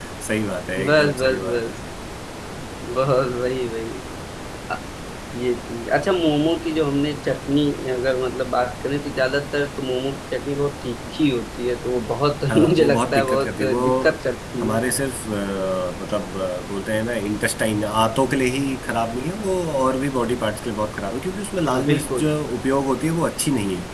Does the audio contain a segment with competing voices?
Yes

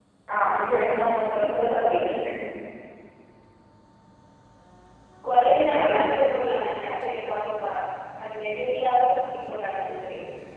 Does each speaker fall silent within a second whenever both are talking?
No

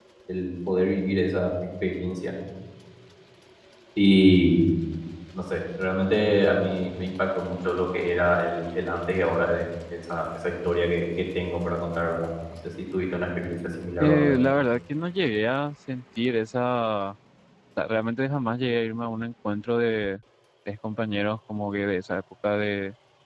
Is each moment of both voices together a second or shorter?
Yes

